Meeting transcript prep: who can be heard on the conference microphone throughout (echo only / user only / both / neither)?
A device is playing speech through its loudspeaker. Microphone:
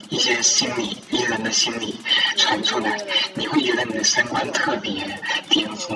both